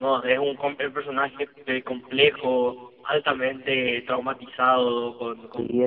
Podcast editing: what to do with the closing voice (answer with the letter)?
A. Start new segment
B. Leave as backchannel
A